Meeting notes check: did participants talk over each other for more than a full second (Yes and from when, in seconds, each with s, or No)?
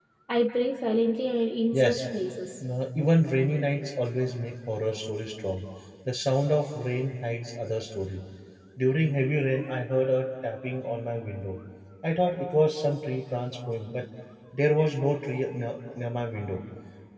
No